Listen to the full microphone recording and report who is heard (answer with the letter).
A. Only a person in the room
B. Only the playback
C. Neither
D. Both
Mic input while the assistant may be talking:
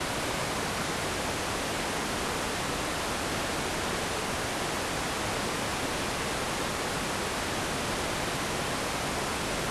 C